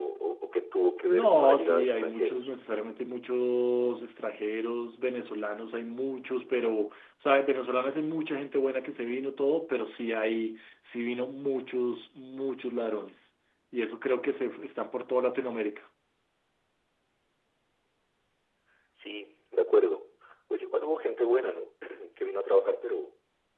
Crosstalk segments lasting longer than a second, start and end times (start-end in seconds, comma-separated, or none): 1.1-2.5